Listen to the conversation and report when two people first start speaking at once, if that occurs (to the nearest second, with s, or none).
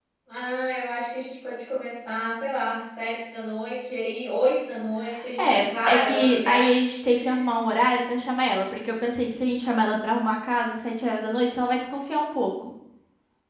5 s